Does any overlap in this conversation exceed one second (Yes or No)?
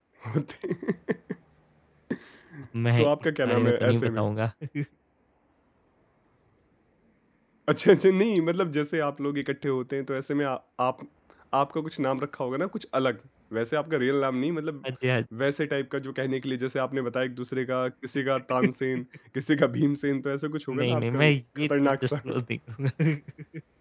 Yes